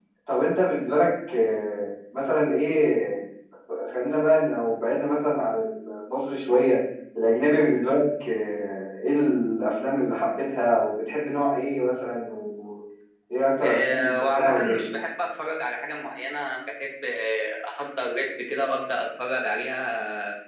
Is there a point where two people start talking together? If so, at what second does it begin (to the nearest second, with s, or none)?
14 s